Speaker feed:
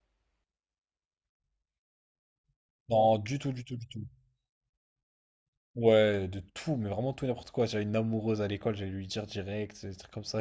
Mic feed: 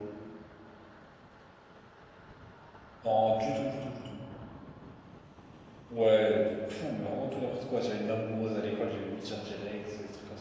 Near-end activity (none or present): none